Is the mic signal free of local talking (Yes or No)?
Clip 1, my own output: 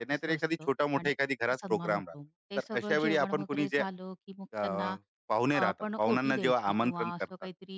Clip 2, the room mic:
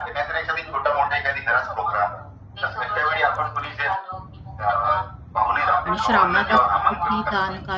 No